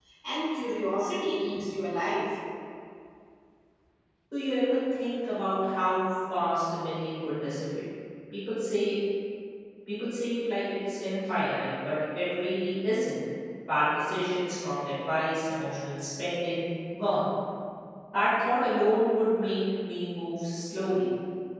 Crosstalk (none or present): none